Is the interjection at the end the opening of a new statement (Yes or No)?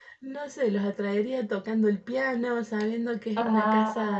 No